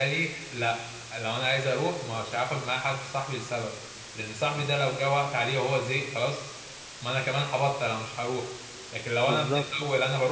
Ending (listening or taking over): listening